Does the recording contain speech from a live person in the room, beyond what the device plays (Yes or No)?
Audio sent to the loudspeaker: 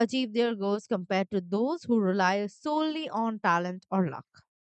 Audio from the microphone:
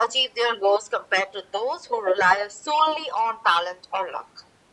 No